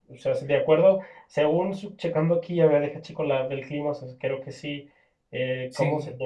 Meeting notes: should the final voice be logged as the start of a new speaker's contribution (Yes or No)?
No